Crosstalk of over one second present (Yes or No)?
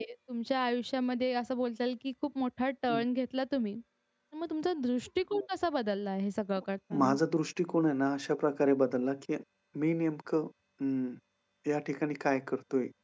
No